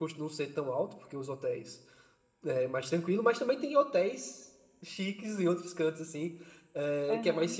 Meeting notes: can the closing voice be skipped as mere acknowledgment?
Yes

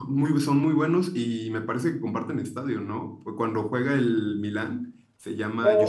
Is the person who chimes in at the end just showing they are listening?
No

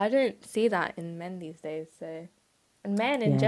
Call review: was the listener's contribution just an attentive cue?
Yes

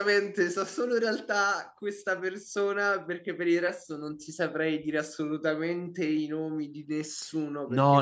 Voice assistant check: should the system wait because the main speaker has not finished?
No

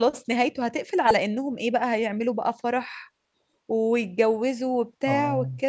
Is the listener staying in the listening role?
Yes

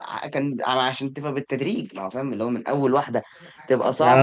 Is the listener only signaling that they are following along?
No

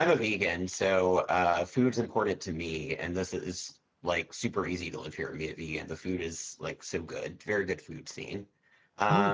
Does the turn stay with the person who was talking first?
No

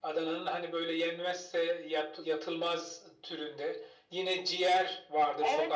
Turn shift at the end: Yes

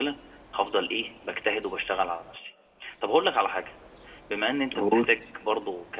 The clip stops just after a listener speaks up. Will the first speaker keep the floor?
Yes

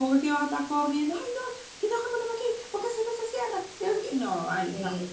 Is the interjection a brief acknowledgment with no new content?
No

